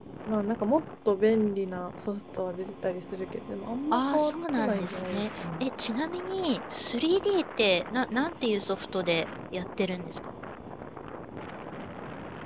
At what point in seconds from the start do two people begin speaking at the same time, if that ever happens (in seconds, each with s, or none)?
3.9 s